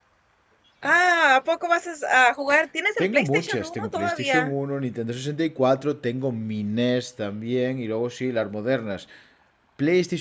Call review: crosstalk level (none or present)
present